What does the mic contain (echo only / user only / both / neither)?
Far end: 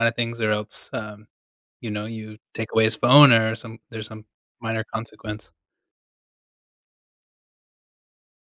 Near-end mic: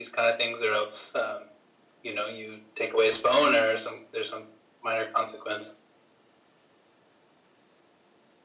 echo only